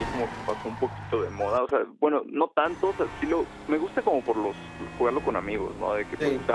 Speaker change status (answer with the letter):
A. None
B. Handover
A